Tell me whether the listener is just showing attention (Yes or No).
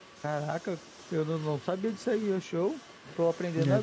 Yes